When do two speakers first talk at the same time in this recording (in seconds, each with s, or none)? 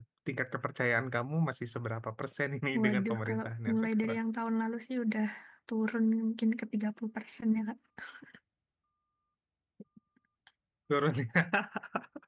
2.7 s